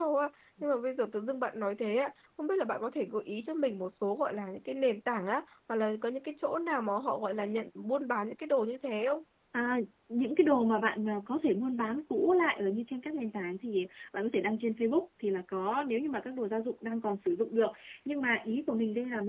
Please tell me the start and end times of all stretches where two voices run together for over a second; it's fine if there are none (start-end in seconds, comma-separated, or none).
none